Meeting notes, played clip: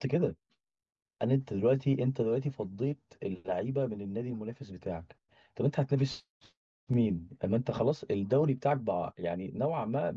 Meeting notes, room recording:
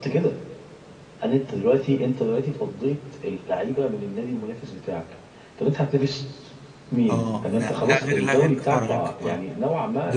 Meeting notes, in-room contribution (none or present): present